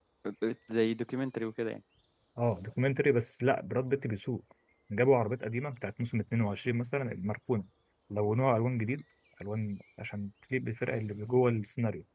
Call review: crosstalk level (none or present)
none